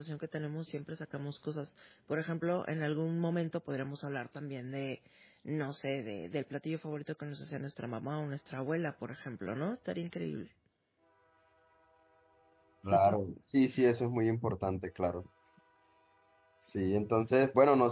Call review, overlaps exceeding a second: none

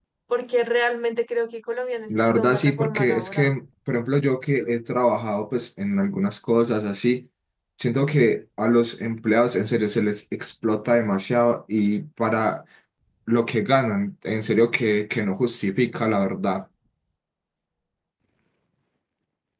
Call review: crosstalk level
present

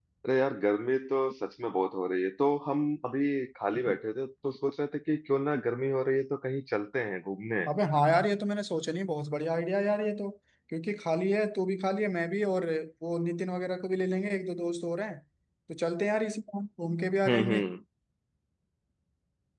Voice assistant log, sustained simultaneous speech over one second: none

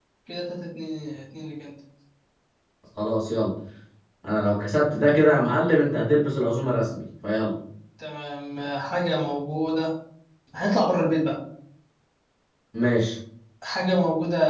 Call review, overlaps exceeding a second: none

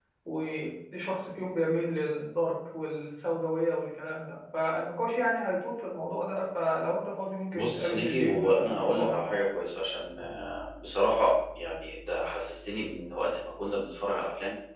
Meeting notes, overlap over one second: present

